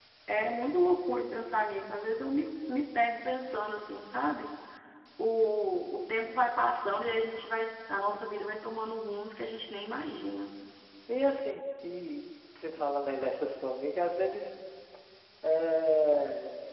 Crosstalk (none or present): none